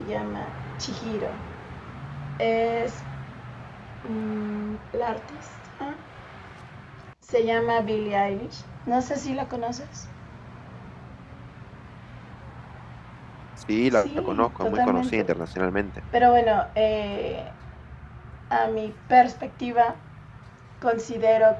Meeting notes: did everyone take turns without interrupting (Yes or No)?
No